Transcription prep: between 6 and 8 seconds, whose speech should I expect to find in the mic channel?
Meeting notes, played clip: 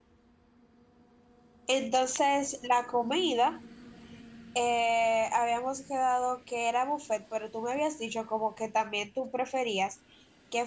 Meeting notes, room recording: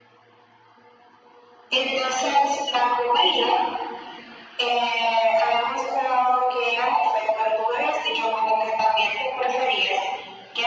echo only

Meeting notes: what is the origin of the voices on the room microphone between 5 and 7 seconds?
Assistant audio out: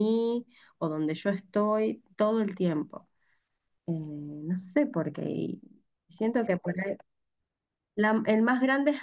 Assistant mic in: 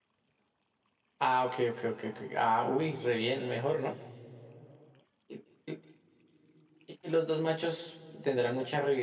user only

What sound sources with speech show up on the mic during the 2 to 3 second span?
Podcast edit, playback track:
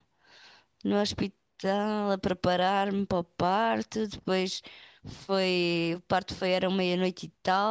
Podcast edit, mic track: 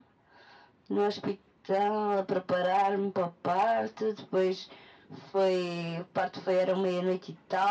echo only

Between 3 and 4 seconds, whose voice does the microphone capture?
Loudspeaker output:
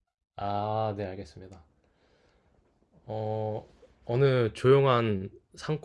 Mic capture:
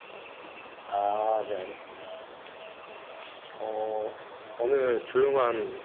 echo only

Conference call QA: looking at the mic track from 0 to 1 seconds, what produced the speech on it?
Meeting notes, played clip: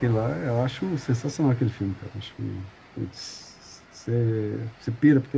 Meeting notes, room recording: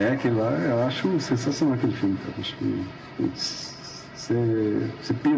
echo only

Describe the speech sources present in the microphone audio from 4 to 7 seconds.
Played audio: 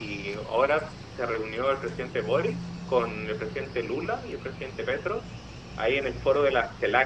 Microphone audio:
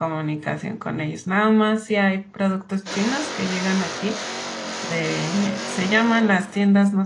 user only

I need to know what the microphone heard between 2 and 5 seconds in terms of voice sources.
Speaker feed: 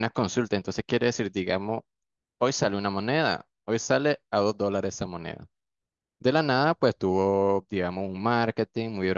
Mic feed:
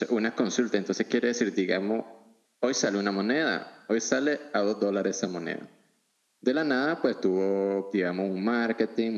echo only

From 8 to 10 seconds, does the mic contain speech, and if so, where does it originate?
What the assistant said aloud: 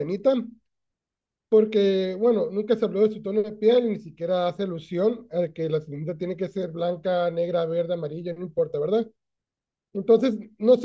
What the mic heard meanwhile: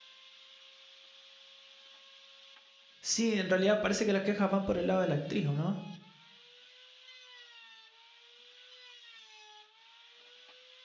neither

